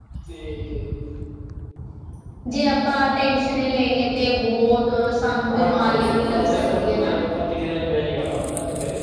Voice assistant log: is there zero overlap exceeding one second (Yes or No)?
No